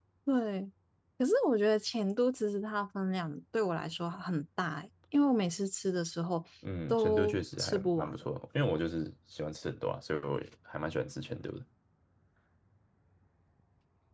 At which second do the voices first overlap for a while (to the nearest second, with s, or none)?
7 s